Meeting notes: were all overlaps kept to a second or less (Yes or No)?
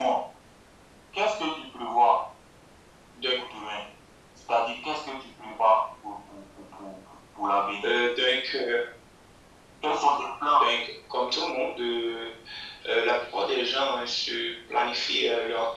Yes